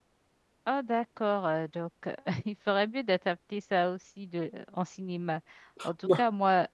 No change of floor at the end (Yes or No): Yes